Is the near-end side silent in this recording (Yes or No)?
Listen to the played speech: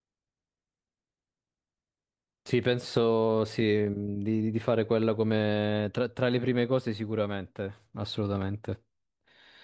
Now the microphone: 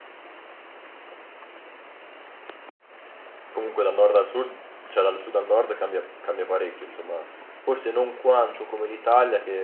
No